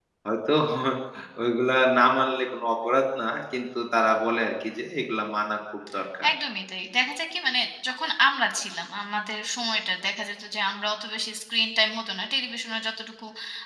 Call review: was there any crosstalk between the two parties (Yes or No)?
No